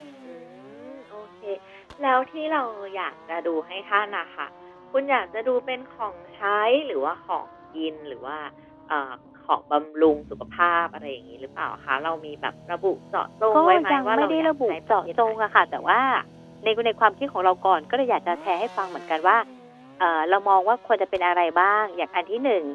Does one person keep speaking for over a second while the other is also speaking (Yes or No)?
Yes